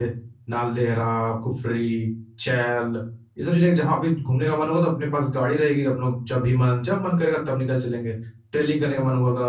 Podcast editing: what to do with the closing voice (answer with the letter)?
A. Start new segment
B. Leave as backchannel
B